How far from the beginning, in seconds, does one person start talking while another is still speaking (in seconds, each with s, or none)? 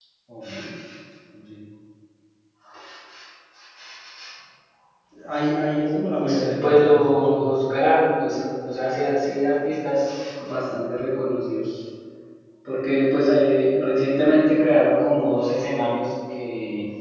6.3 s